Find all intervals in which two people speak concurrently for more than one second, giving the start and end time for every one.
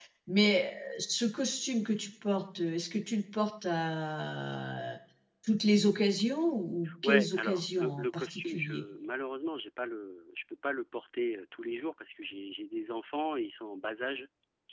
7.0-8.8

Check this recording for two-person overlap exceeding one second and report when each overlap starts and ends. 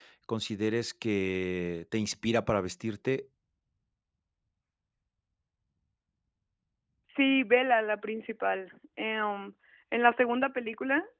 none

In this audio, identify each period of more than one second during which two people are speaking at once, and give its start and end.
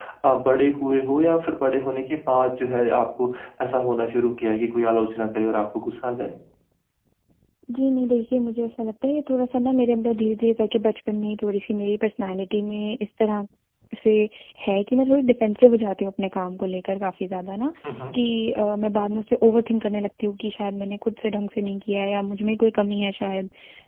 none

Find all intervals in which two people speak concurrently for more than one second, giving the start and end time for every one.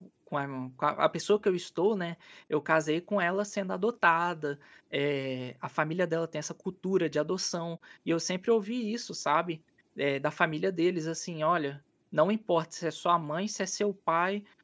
none

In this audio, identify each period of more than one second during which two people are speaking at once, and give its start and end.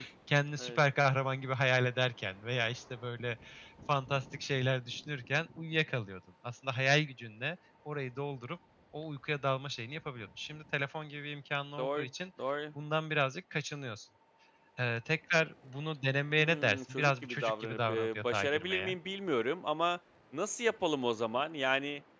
16.4-18.9

